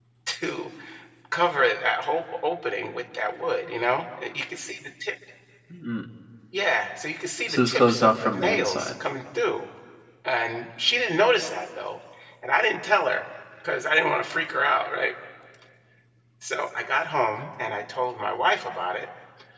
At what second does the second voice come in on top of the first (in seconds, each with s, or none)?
7.5 s